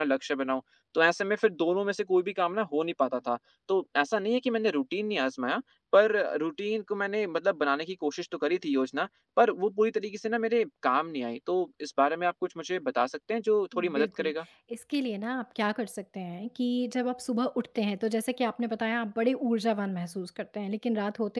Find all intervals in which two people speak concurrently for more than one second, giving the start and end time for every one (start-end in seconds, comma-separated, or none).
none